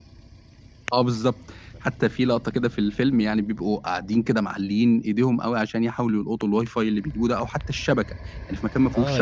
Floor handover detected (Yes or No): Yes